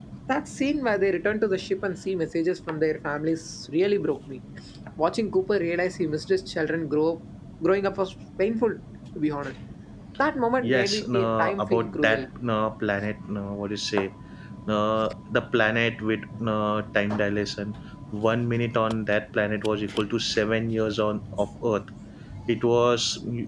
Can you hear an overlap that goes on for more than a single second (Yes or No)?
Yes